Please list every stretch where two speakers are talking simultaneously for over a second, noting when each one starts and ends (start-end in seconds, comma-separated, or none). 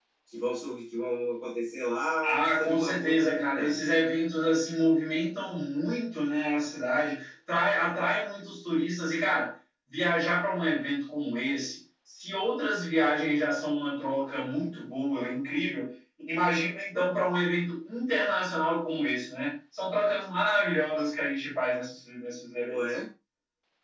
2.2-3.9